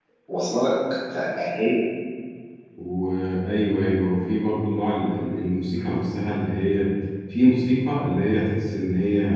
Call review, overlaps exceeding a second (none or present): none